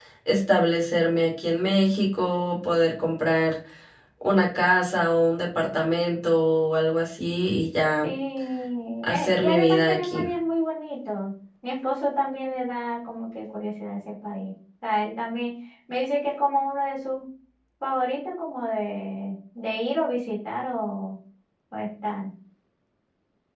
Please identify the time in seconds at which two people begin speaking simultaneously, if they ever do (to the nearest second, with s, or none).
9 s